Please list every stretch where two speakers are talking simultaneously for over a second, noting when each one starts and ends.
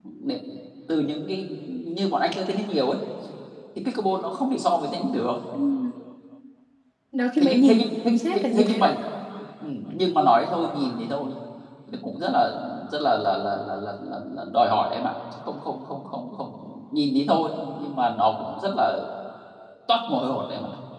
7.4-8.9

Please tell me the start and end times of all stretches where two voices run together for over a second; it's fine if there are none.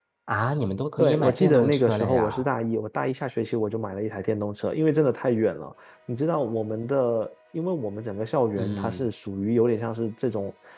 1.0-2.5

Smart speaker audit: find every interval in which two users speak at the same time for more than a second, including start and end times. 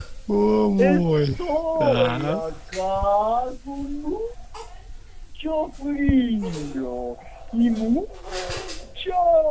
0.8-2.4

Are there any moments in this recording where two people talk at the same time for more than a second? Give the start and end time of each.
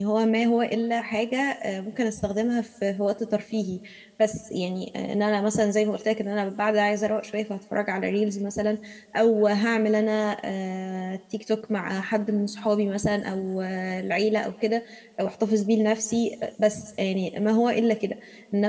none

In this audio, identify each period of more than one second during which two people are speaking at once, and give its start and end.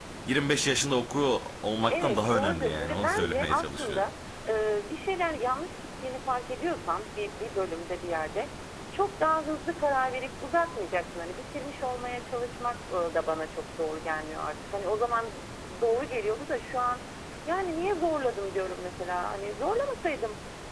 1.9-4.1

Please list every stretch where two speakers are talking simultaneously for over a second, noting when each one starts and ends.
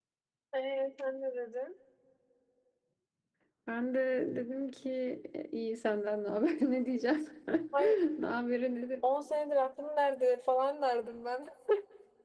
none

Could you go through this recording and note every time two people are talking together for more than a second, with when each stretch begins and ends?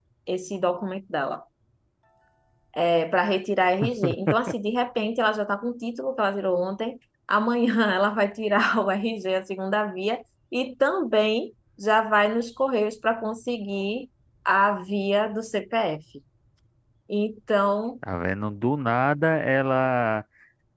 none

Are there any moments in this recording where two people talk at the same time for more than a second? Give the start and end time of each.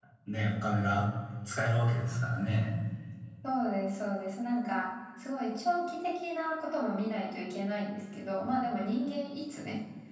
none

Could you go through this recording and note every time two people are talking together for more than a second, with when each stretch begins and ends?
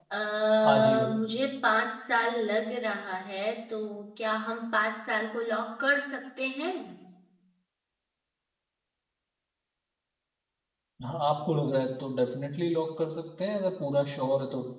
none

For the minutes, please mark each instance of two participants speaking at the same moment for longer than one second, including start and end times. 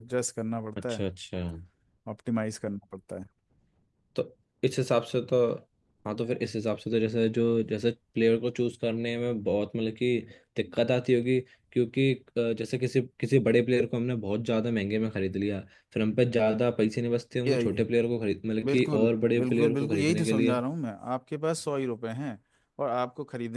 18.6-20.6

